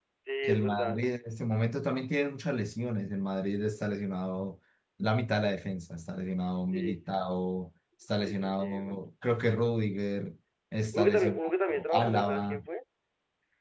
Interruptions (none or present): present